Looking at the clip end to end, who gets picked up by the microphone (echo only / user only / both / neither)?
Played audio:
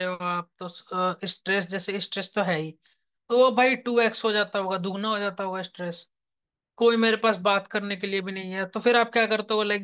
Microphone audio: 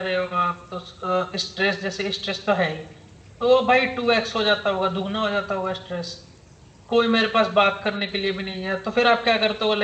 echo only